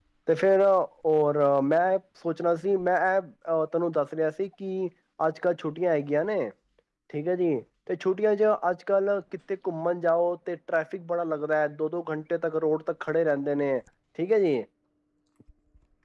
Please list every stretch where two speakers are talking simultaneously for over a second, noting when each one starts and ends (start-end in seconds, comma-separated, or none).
none